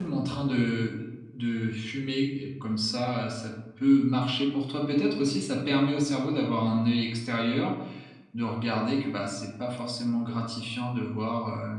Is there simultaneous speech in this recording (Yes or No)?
No